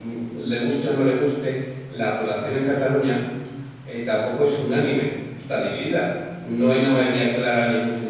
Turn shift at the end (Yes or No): No